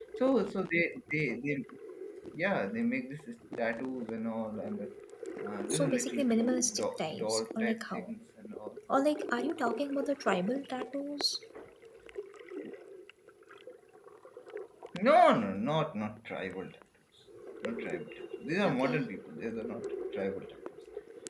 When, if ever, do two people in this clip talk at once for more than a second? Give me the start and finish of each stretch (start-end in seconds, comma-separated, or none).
5.7-8.1